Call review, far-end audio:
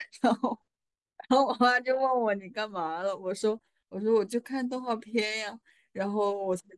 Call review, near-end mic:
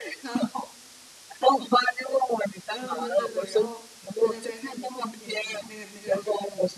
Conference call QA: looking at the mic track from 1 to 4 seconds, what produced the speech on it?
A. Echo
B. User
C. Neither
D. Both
D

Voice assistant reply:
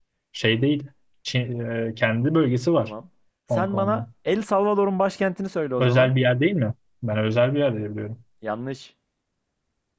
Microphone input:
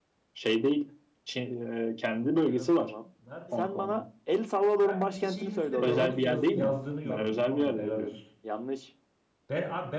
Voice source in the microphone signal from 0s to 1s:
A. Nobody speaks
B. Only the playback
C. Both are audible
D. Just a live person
B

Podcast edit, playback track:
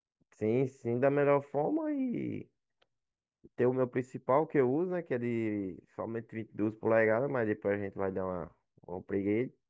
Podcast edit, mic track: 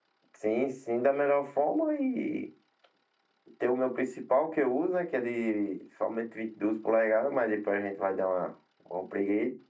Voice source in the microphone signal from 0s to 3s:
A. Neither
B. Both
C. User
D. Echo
D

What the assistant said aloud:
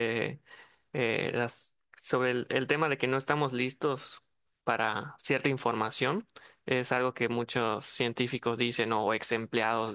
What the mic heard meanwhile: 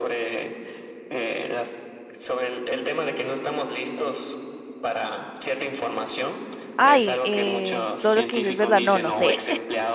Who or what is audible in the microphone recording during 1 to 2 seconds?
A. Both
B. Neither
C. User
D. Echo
D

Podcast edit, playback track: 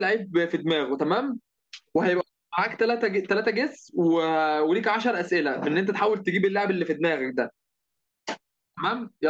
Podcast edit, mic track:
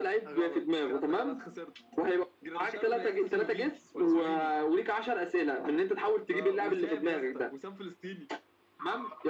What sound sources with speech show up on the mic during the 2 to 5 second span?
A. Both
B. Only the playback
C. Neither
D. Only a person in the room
A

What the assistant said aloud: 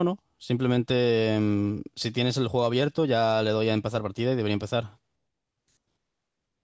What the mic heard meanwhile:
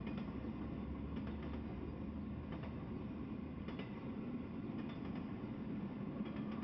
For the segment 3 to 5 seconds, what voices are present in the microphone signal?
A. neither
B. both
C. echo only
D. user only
A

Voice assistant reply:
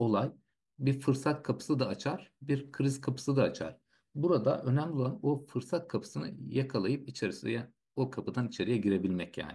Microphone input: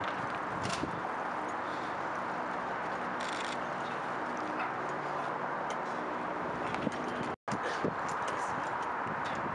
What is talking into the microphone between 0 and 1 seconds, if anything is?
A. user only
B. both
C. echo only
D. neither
D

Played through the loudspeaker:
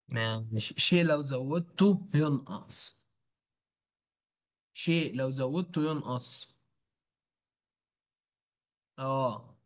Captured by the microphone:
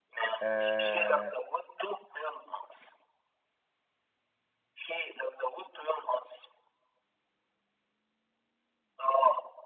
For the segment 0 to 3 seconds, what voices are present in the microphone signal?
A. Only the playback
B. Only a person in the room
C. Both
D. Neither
C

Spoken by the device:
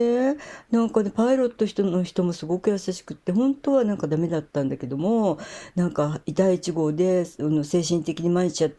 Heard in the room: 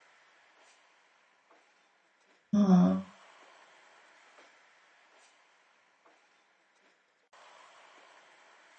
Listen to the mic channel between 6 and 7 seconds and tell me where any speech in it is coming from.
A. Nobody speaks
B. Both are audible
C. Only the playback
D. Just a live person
A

